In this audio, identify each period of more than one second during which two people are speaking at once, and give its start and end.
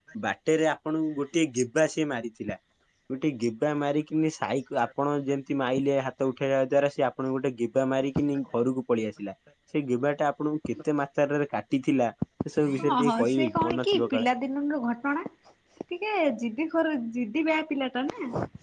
12.8-14.3

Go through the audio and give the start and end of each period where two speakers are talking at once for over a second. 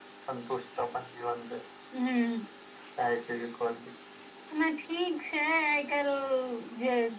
none

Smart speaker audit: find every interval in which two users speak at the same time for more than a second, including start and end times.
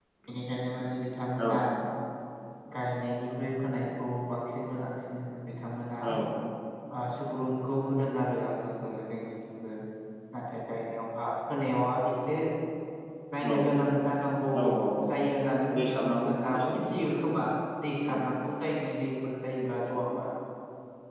15.8-17.0

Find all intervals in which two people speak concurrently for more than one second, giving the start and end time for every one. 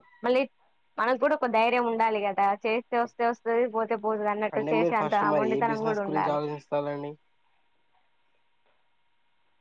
4.6-6.4

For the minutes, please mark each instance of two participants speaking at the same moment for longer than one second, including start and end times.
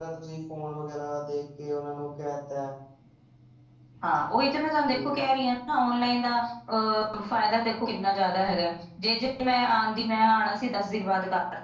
none

